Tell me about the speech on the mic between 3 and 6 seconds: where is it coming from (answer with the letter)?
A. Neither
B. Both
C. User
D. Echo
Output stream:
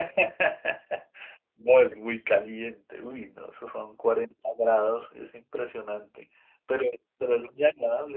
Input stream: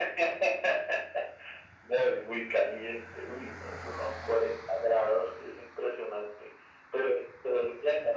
D